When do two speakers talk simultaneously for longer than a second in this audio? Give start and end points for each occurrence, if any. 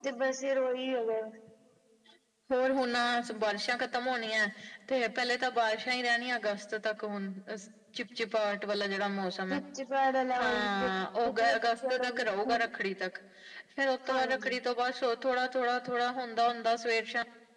11.4-12.7

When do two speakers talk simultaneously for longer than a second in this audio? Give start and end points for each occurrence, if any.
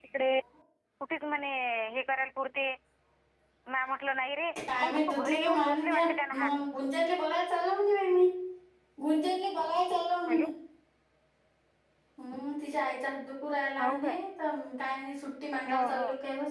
4.8-6.5

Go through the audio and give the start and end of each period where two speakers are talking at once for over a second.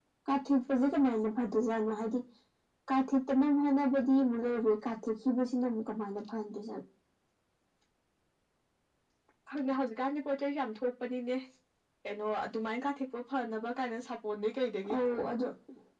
none

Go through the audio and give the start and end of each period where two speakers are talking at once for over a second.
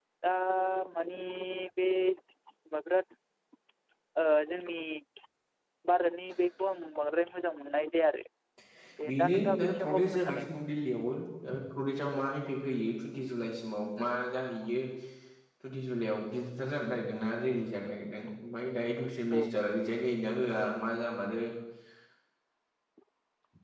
9.1-10.5

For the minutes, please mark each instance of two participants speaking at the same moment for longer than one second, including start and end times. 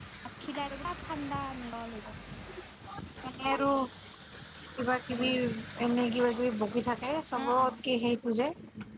none

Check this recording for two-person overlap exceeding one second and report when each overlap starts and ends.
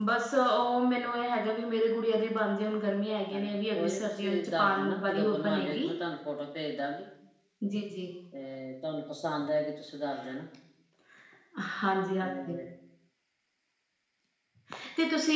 3.3-5.9

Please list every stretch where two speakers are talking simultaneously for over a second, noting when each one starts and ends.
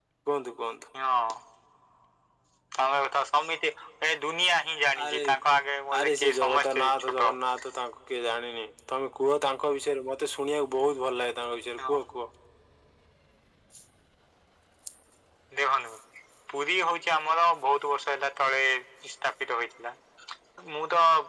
6.0-7.2

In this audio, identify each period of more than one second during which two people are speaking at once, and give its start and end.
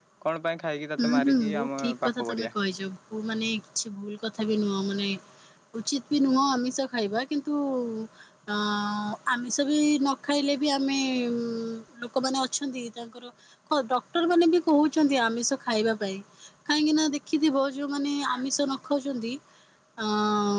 1.0-2.5

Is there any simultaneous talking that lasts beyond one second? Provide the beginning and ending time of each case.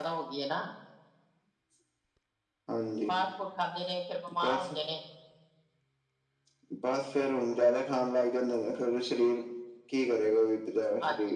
none

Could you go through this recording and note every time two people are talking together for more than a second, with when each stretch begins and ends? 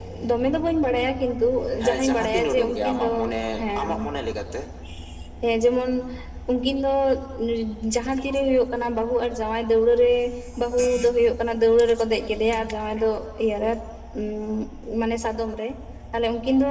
1.9-3.1

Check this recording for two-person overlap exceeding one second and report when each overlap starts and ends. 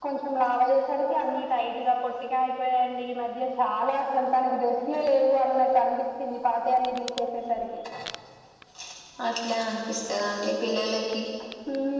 none

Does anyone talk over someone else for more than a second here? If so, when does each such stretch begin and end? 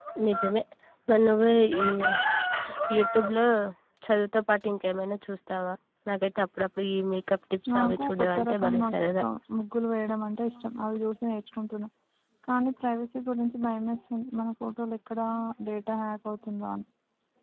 7.7-9.2

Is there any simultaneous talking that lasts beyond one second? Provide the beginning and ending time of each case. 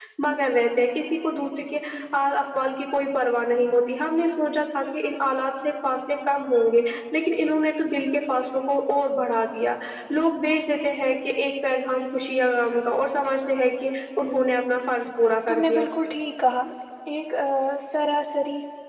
none

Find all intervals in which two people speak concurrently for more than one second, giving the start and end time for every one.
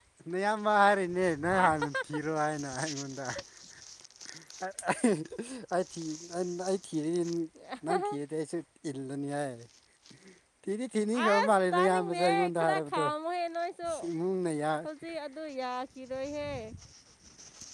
11.3-13.0

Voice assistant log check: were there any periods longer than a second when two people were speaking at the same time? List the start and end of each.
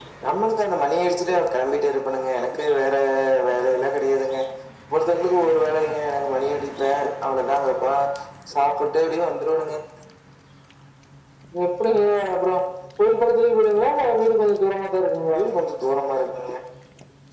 none

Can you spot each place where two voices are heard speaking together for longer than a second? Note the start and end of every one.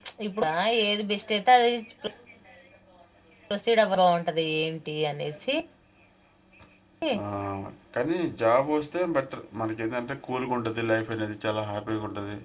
none

